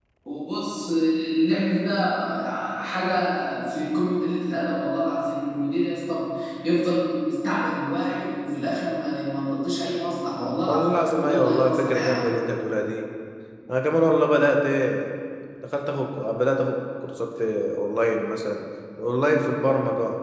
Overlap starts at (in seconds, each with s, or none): 10.7 s